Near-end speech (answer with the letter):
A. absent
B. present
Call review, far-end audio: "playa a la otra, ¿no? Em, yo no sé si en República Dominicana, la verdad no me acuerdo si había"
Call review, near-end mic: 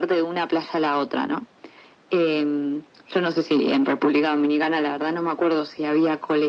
A